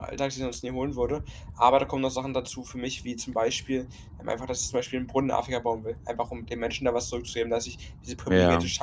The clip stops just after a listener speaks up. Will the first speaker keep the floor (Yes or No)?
Yes